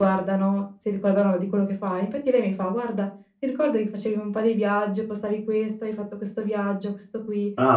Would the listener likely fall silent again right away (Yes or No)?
Yes